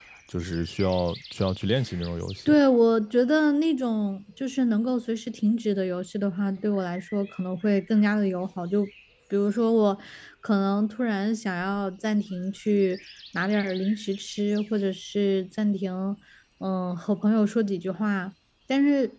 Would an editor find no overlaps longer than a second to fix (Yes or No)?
Yes